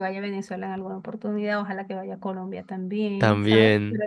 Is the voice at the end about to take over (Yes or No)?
No